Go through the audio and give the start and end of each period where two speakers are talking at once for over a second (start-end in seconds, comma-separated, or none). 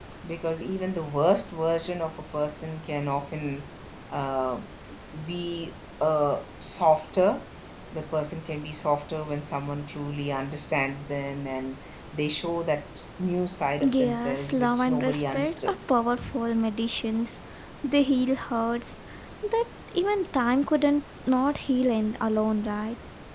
13.8-15.8